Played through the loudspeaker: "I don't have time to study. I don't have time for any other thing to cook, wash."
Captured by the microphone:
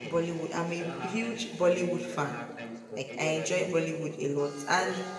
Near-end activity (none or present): present